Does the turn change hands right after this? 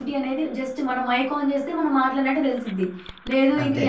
No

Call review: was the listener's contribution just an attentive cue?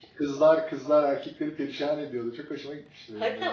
No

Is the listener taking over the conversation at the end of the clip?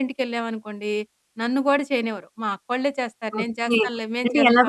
Yes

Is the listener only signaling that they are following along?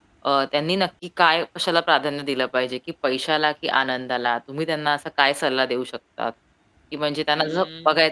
Yes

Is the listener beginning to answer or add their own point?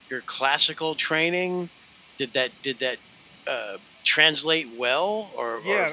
Yes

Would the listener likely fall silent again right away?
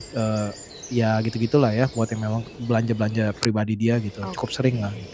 No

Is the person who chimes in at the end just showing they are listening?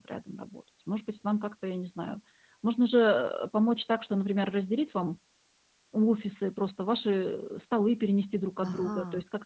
Yes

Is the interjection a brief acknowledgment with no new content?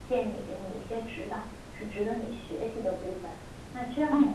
Yes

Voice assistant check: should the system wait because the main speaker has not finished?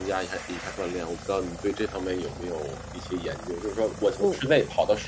Yes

